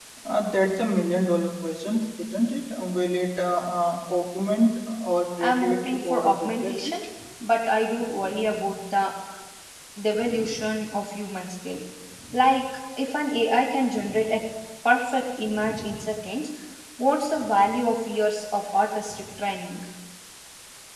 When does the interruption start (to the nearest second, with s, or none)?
5 s